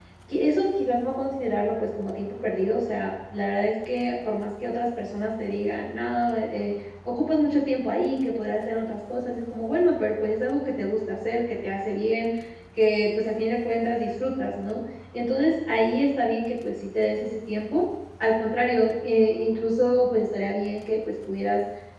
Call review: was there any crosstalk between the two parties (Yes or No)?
No